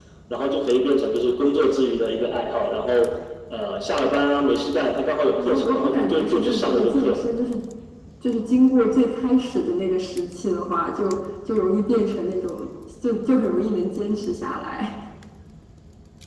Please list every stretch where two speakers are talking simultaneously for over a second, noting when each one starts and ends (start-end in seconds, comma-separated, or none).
5.4-7.2